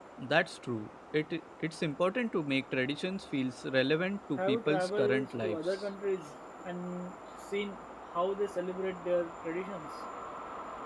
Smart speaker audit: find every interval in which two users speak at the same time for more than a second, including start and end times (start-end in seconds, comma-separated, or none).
4.4-5.8